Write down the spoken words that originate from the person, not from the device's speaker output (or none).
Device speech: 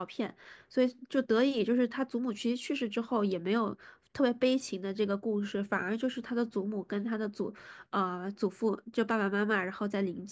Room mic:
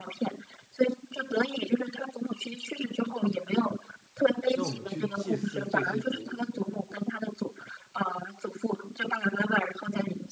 那我们去祭祀这些古，